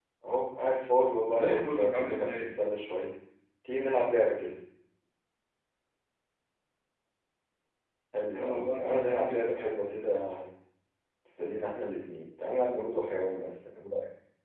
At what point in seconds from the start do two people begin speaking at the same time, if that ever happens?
1.3 s

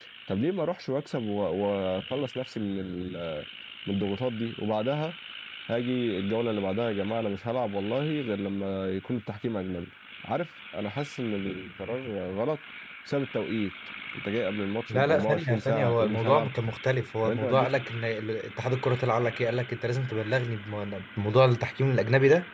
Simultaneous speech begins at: 14.9 s

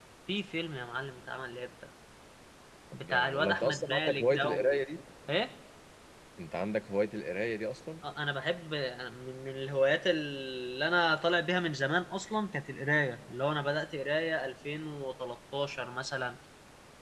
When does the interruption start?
2.9 s

